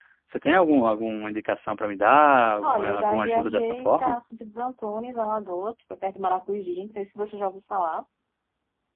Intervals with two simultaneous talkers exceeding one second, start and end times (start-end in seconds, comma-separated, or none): 2.6-4.2